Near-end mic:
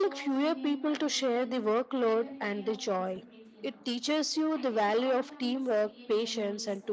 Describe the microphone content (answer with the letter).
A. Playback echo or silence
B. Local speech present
B